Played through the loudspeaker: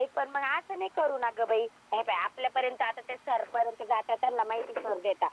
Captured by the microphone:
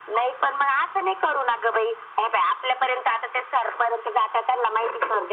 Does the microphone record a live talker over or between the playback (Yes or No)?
No